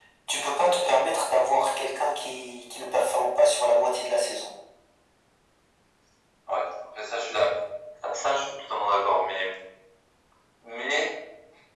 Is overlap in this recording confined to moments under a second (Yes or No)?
Yes